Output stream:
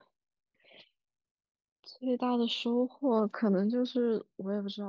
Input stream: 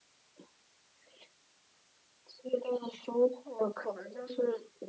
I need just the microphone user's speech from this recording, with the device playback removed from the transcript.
none

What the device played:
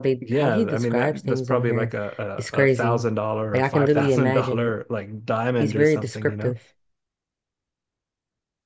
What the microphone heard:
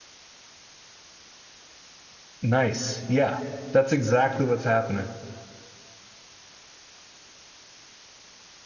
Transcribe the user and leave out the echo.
Nice. Yeah. That's exactly what's happening.

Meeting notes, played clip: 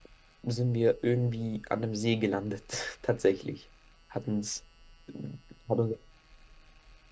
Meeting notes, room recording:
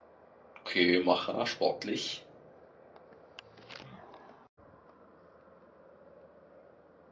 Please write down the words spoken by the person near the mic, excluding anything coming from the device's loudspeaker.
Okay, Macher, sportlich.

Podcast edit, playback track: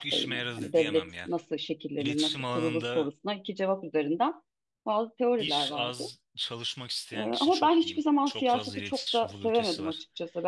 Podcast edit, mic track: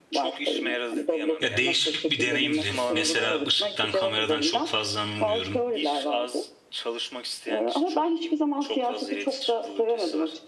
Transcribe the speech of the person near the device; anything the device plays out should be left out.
Ya değişik bir deneyimdi. Mesela ışıktan, kameradan çok fazla anlamıyorum.

